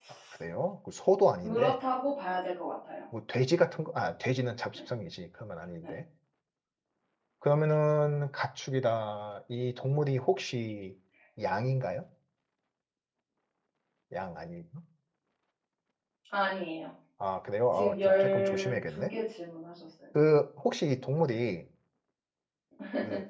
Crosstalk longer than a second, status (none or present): present